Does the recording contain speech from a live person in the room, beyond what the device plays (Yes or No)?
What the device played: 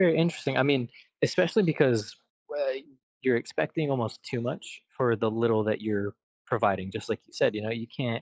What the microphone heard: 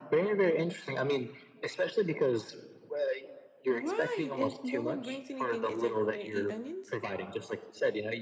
Yes